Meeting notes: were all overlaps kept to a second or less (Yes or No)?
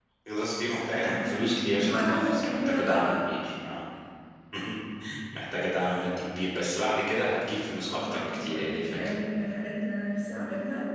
No